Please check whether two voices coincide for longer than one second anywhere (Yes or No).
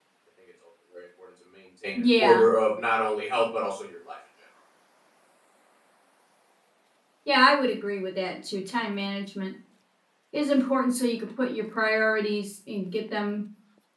No